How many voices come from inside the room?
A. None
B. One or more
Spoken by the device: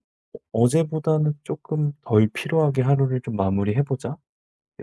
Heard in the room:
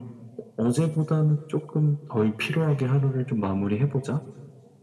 A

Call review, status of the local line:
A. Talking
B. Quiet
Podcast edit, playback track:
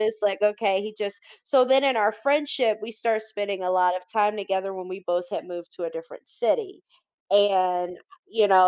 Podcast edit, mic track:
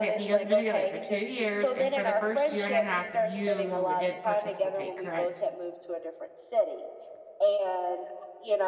A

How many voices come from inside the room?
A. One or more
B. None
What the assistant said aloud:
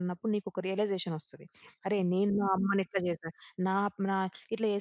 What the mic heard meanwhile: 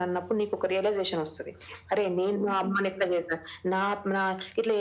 B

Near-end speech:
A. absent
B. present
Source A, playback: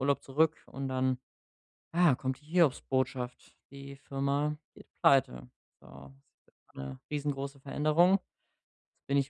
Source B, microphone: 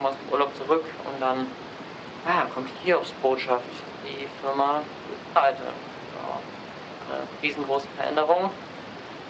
A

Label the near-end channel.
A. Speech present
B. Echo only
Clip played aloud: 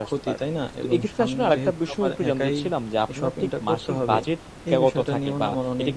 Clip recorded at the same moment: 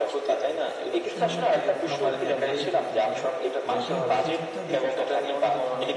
A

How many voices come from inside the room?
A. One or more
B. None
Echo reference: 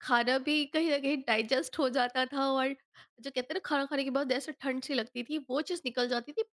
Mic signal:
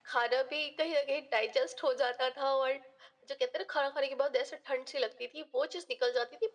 B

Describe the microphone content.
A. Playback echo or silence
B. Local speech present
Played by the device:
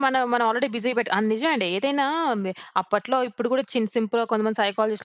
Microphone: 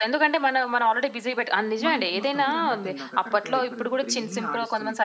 B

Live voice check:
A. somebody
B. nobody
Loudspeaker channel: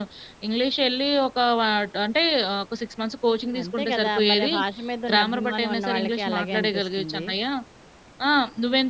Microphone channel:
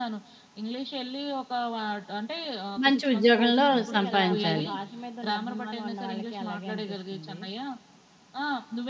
A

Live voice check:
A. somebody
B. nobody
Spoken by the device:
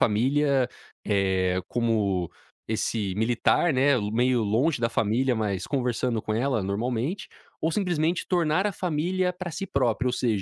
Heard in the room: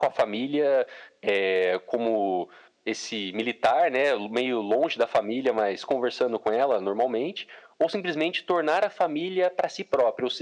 B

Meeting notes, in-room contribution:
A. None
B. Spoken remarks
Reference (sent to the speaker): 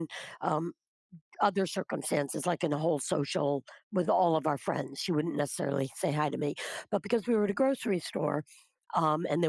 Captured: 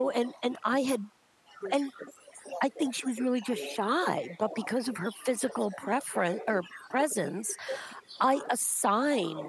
B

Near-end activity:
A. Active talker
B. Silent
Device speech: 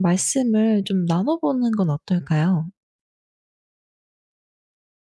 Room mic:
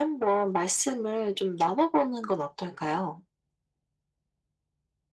B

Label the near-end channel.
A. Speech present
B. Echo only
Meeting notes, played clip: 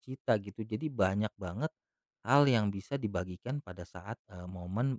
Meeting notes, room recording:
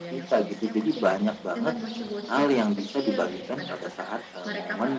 A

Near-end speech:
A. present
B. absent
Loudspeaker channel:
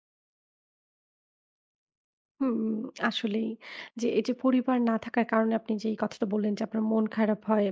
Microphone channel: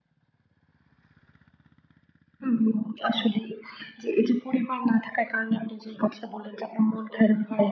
B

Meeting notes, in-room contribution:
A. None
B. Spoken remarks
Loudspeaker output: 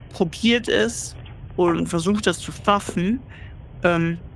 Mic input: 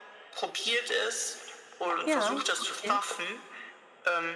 B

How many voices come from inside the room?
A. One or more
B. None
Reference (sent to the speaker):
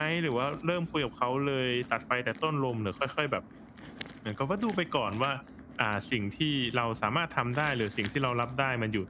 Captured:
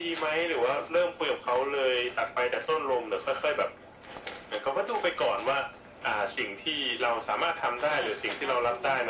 A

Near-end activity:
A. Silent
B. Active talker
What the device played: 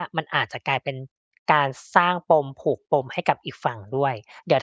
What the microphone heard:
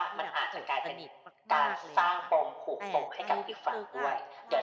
B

